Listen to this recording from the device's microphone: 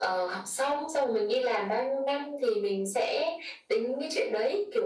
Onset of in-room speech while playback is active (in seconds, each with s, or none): none